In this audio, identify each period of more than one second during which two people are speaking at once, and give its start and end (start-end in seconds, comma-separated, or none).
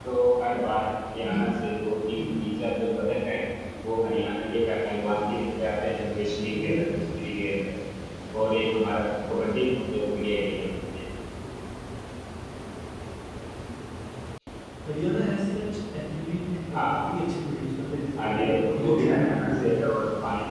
18.2-19.6